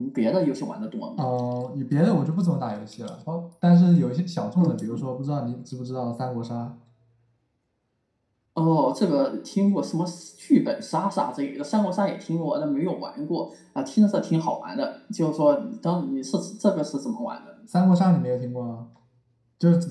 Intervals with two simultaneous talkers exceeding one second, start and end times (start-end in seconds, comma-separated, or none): none